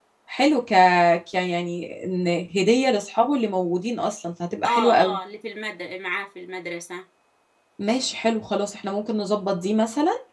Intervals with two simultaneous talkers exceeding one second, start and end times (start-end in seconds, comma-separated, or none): none